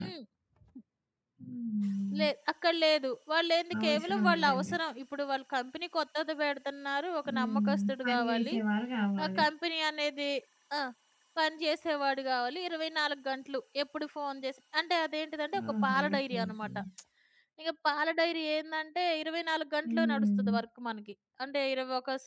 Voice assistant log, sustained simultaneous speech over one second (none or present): present